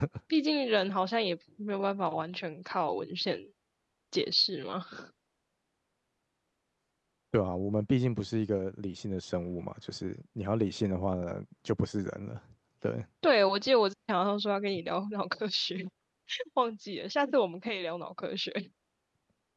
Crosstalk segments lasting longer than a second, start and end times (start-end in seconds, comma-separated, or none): none